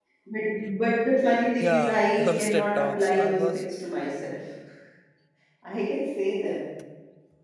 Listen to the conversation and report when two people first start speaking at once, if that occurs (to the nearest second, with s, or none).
2 s